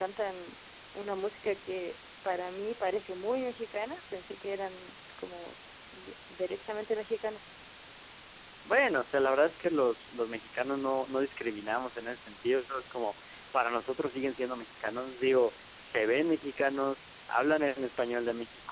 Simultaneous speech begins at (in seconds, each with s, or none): none